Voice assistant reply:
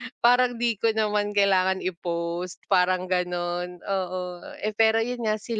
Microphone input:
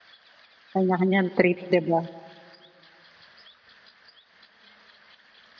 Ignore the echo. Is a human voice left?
Yes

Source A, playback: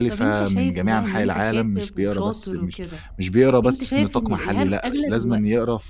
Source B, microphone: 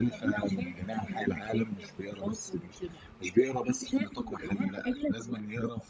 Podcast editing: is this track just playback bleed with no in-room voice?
Yes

